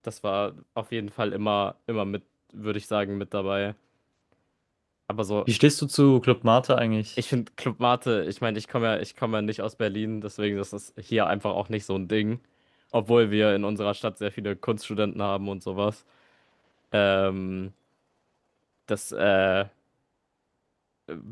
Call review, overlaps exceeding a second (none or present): none